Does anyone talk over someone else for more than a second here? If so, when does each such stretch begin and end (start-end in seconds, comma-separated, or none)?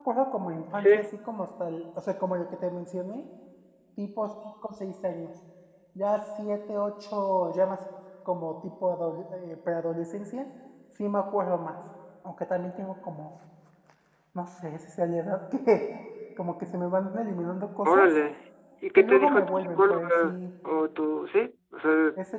19.0-20.4